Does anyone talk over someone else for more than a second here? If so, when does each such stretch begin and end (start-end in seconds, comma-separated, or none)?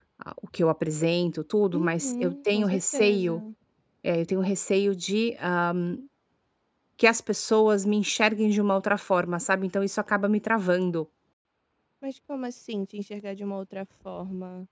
1.7-3.4